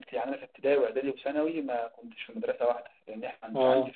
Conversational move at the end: listening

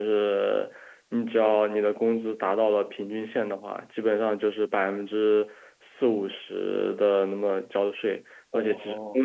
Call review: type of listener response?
listening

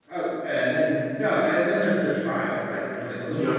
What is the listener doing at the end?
taking over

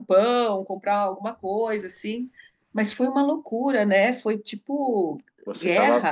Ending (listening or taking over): taking over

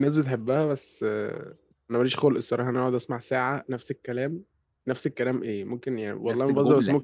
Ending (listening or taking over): listening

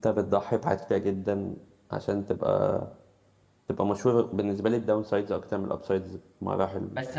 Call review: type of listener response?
taking over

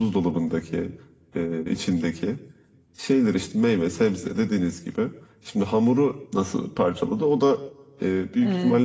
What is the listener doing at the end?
taking over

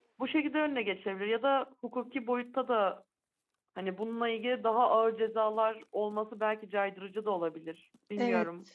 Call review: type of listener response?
taking over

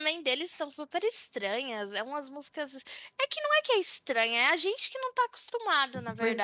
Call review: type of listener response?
taking over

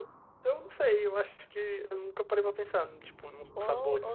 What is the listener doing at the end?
taking over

